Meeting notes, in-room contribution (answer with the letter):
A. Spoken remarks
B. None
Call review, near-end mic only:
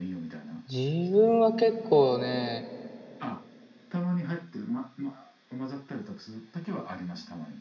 A